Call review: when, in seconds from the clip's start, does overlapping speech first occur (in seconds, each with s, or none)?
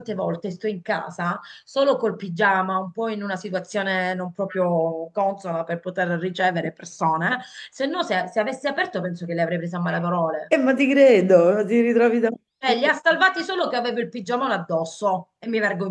none